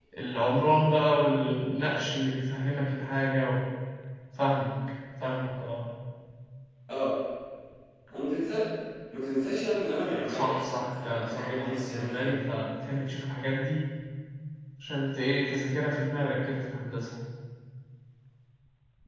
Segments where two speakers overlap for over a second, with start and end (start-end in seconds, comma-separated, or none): 10.3-12.4